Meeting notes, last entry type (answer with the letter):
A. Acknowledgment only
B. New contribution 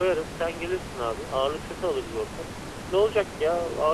A